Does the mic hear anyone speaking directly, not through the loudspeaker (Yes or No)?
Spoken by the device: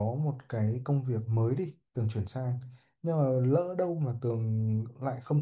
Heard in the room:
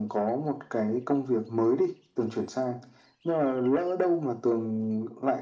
No